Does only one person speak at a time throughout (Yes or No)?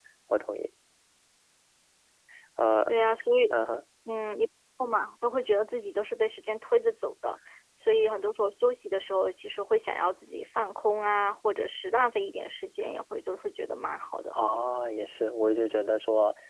Yes